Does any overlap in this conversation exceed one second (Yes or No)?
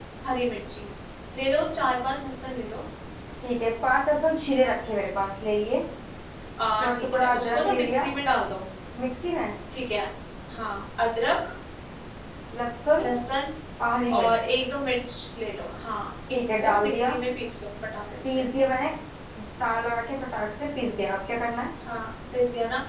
Yes